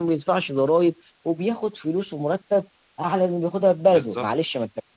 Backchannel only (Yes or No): Yes